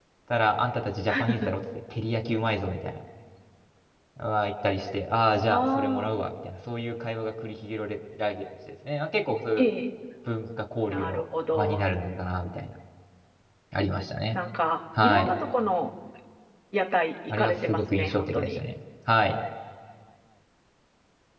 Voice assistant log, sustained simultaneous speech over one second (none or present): present